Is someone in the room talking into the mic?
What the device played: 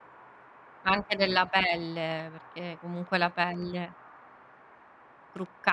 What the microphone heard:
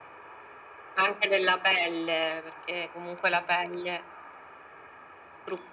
No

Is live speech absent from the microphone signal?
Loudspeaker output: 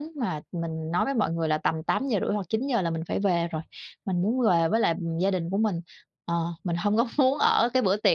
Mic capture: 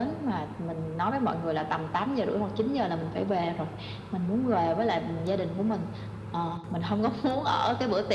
Yes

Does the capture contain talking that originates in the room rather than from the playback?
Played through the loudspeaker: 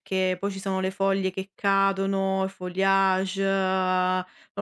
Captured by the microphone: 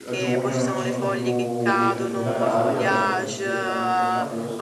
Yes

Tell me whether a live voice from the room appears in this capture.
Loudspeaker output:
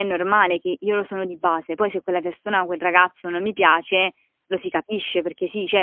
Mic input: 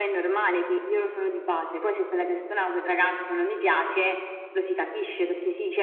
No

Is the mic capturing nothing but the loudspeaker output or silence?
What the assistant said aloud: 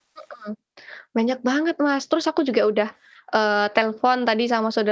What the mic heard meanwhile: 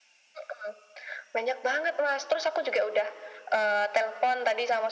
Yes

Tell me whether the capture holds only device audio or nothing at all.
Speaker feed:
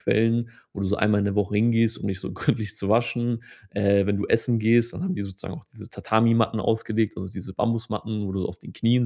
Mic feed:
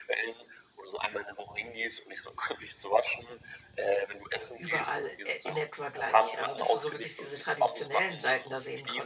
No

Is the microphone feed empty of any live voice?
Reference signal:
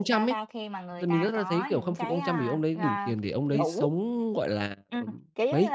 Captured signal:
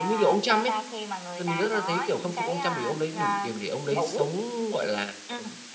Yes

